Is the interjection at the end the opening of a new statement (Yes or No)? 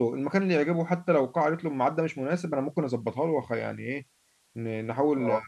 No